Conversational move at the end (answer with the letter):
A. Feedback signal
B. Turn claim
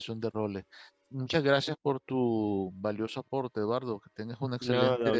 B